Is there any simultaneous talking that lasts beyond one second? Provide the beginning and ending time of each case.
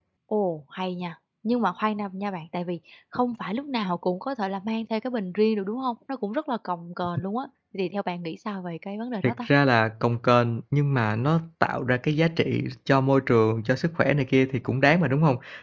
none

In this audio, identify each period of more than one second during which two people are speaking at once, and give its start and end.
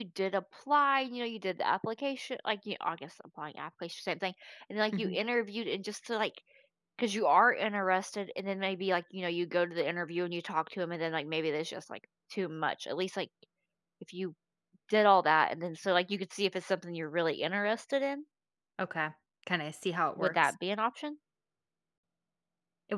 none

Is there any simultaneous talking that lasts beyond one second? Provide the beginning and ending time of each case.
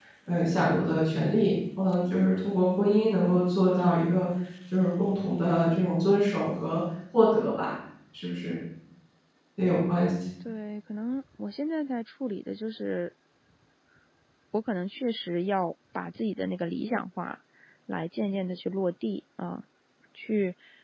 none

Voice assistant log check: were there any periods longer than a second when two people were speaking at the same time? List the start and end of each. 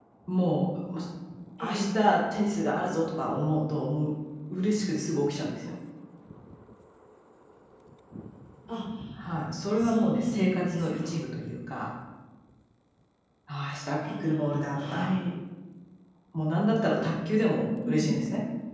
9.8-11.1

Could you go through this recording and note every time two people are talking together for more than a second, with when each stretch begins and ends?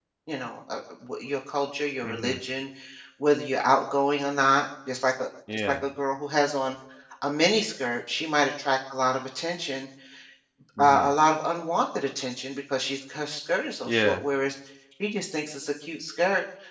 none

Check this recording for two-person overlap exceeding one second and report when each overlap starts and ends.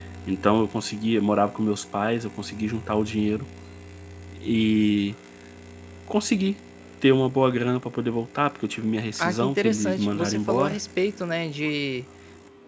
9.2-10.8

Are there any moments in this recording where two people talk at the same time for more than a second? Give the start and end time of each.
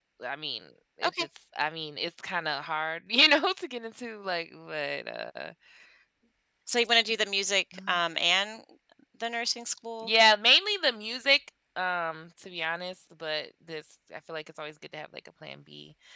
none

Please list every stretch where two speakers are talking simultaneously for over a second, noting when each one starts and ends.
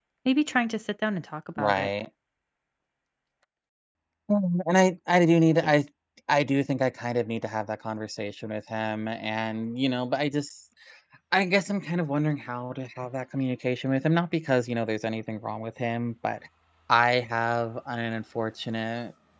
none

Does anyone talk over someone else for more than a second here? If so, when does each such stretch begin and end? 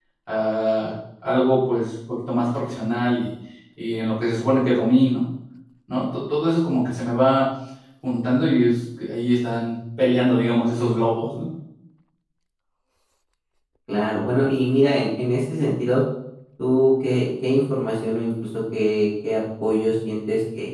none

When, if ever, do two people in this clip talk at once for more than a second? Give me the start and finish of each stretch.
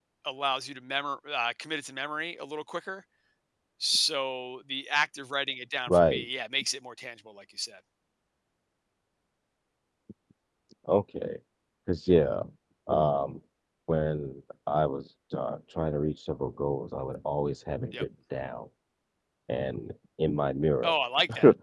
none

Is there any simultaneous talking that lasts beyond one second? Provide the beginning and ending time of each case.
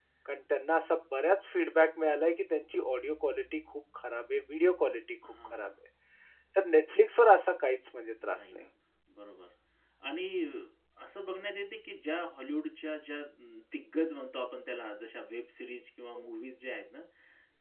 none

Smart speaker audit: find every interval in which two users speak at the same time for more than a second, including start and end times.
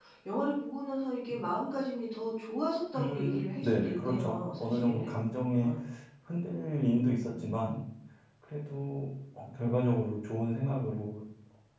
3.0-5.1

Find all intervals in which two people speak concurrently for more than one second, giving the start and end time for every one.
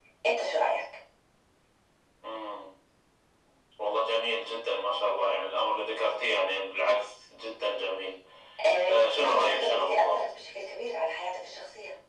8.9-10.2

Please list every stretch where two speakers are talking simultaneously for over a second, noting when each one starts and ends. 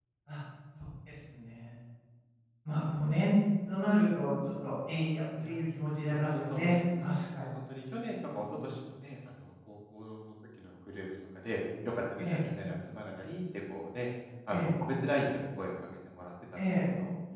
6.1-7.5

